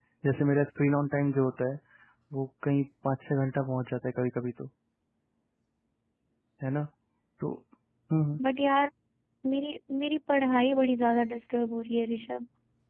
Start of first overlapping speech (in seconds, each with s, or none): none